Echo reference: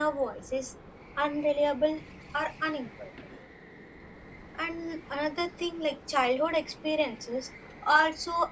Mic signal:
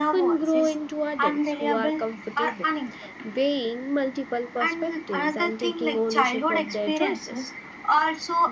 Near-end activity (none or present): present